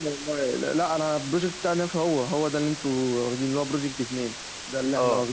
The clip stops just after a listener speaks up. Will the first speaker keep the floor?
No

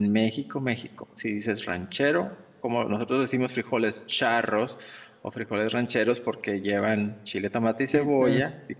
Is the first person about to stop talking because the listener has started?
No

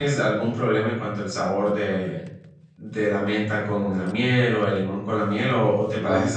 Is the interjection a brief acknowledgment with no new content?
Yes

